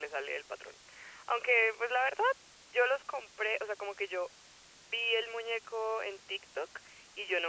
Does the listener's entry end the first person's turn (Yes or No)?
No